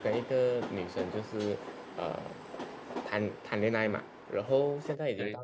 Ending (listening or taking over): listening